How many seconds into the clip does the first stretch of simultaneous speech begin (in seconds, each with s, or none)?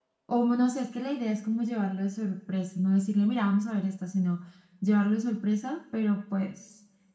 none